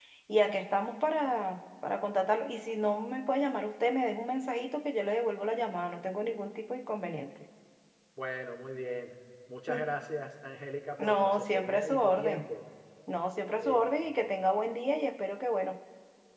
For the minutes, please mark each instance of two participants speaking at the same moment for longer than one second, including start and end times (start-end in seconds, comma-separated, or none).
11.0-12.4